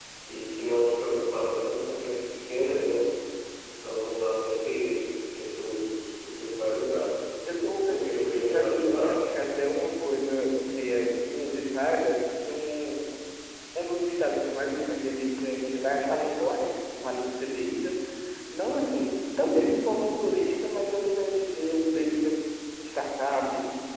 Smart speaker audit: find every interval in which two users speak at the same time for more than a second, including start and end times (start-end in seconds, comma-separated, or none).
7.9-9.2